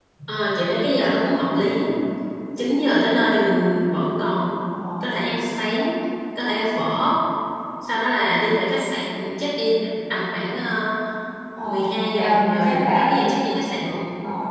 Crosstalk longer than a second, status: present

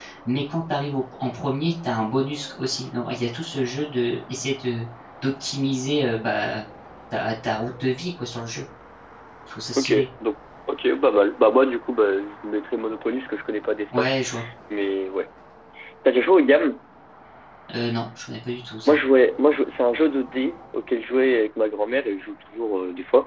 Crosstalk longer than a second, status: none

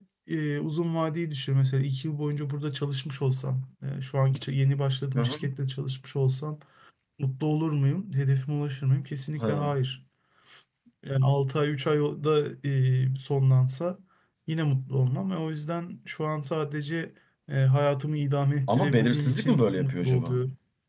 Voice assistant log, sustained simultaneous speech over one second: present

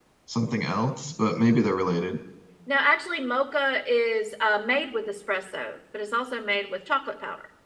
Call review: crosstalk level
none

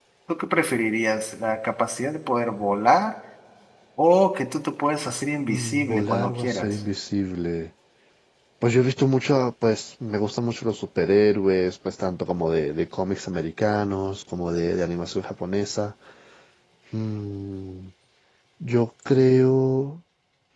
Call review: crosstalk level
present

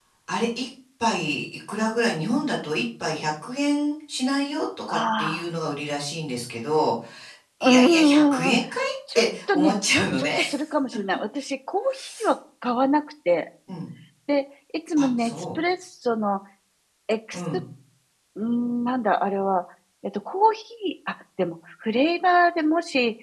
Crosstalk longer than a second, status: present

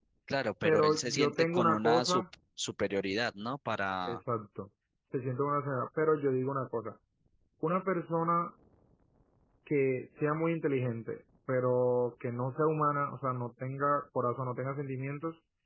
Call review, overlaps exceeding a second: present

